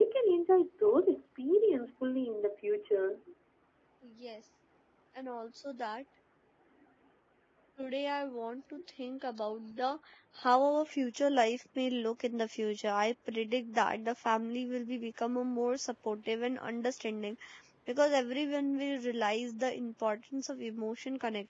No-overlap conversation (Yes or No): Yes